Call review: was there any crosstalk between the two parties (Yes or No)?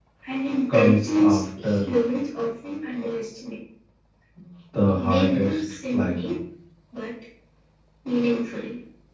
Yes